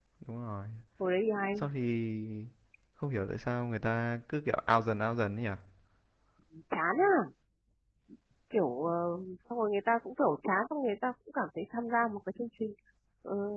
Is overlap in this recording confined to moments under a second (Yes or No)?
Yes